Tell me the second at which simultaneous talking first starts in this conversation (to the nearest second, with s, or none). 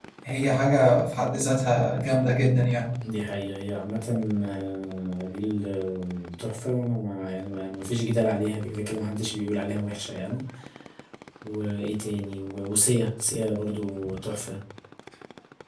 none